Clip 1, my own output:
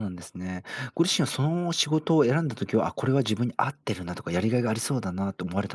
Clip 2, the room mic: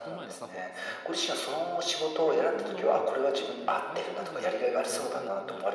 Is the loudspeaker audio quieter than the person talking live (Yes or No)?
No